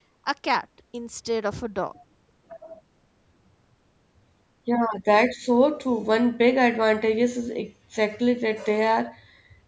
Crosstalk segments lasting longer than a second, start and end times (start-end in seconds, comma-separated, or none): none